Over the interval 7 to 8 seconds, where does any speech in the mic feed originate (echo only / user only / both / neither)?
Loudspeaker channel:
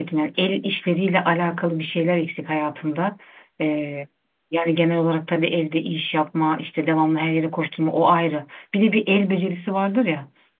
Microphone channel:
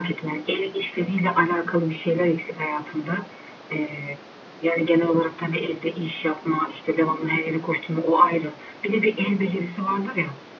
echo only